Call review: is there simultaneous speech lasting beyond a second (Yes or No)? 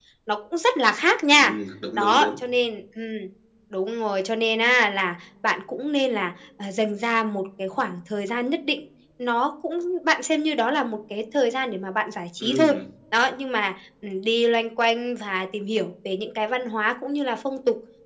No